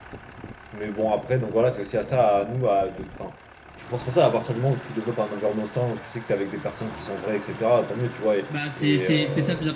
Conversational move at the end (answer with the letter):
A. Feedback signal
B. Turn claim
B